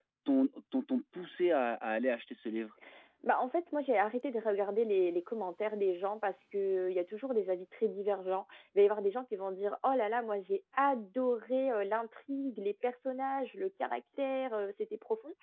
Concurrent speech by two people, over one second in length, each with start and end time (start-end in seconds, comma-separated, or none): none